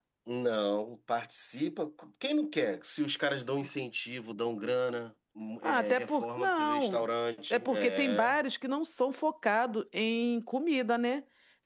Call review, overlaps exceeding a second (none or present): present